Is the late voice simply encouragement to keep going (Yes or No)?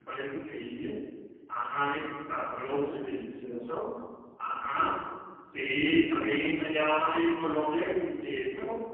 Yes